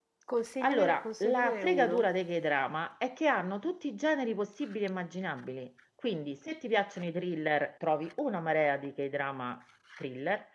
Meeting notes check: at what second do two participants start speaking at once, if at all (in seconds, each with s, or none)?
0.6 s